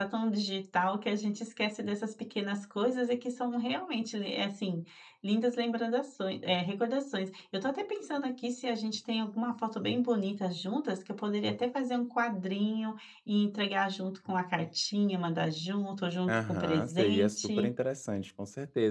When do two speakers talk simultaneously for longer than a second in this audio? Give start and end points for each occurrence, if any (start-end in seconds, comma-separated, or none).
16.3-17.7